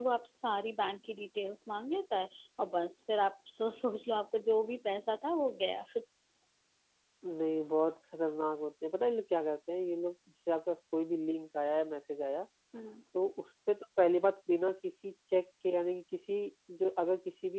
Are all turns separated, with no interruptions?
Yes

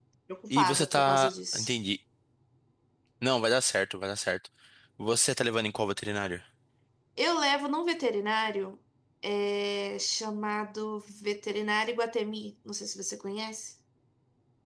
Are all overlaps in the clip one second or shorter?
No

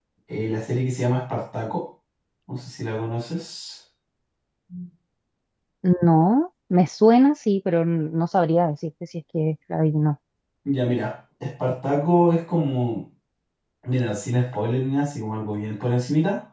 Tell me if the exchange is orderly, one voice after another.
Yes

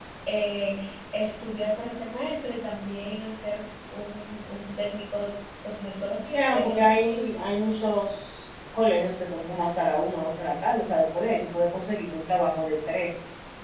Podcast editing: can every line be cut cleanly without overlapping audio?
No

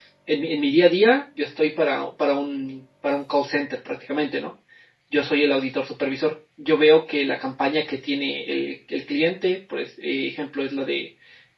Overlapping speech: No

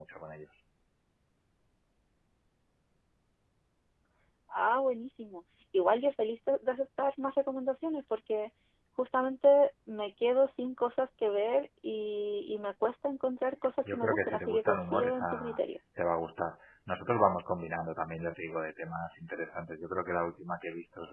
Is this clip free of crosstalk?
No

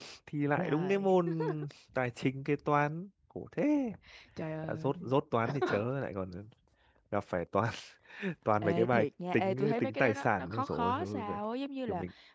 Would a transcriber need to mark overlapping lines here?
Yes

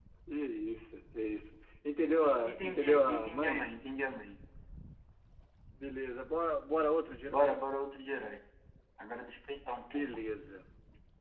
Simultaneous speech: Yes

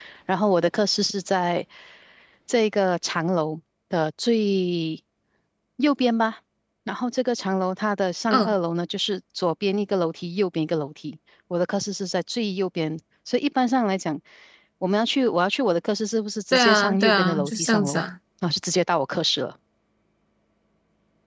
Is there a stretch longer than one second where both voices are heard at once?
Yes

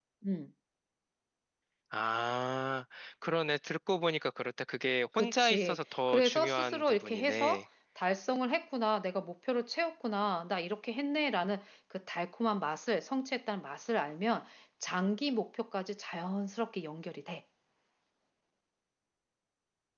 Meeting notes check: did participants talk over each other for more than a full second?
Yes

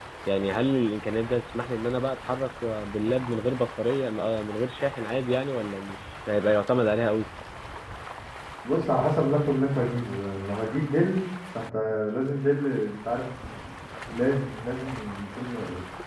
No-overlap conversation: Yes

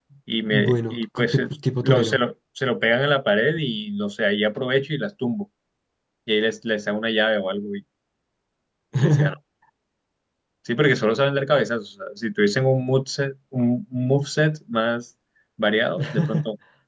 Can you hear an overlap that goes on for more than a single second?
Yes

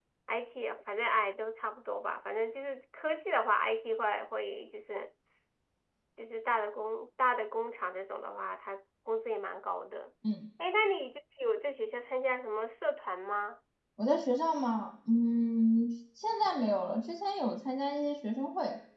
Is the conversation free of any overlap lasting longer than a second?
Yes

